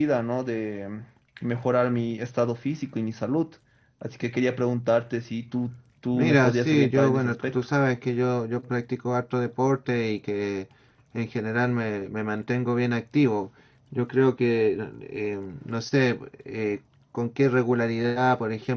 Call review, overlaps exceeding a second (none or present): present